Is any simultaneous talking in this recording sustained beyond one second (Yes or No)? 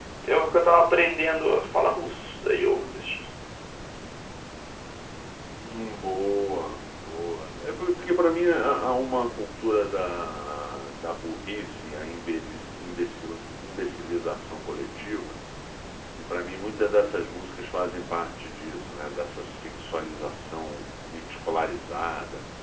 No